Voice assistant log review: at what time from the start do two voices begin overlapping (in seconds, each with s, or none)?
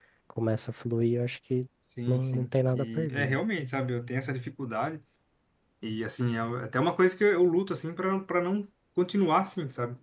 2.1 s